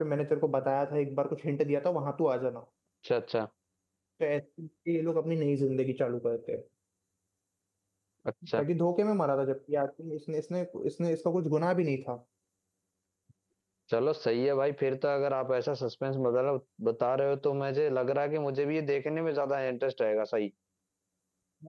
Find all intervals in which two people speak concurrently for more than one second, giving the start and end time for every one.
none

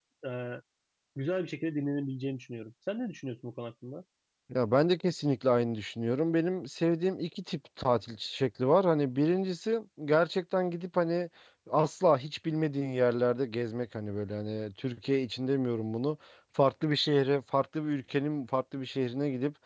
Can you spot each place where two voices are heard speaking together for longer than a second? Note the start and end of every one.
none

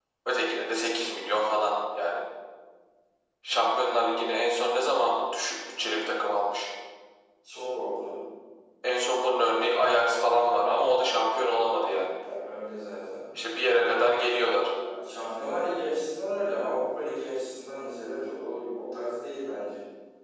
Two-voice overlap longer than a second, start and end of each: none

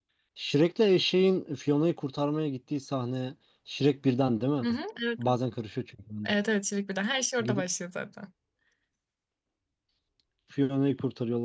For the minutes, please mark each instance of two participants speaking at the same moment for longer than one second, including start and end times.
none

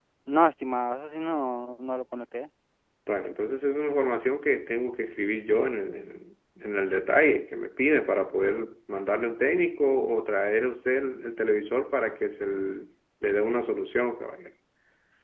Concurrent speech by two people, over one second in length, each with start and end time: none

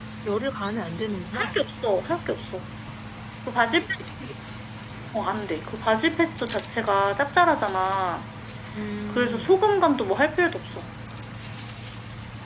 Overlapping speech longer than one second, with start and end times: none

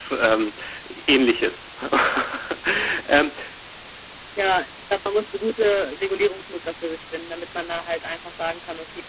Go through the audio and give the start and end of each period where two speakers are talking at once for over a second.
none

